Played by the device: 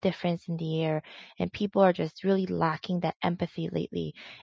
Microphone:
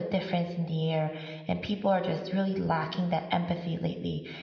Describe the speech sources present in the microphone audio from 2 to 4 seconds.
echo only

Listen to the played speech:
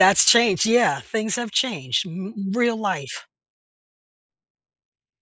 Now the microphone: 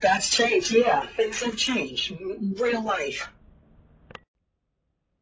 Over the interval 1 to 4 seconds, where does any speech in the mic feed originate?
echo only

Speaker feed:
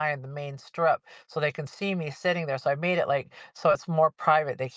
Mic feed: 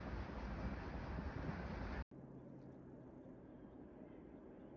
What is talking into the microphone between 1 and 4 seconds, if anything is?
neither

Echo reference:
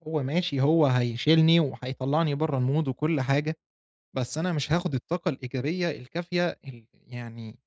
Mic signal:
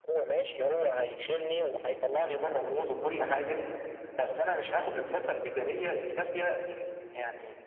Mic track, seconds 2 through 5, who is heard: echo only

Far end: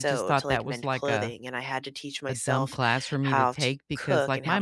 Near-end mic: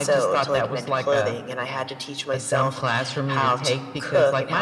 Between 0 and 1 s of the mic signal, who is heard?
echo only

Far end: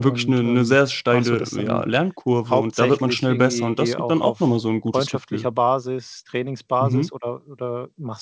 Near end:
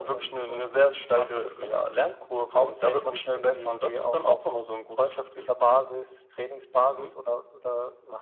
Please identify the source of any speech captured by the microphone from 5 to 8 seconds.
echo only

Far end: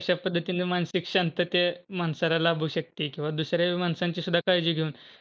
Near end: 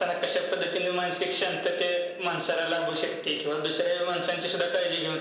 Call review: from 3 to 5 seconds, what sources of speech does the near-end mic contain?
echo only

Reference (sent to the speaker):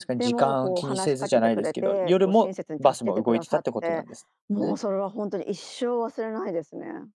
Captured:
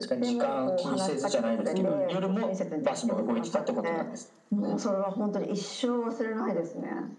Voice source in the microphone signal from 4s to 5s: echo only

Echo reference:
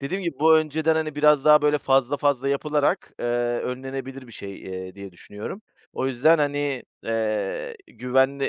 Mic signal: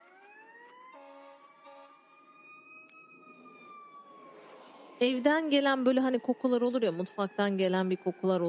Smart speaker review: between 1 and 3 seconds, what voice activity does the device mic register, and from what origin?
neither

